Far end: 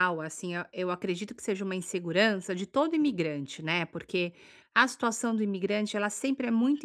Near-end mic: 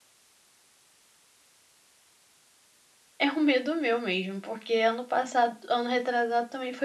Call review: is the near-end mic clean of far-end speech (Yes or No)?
Yes